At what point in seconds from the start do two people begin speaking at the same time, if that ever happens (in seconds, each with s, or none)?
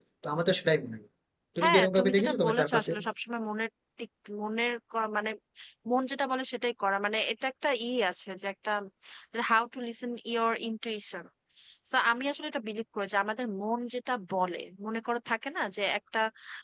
1.6 s